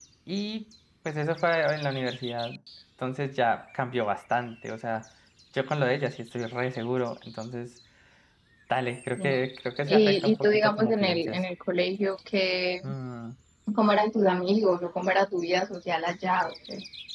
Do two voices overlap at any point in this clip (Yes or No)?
Yes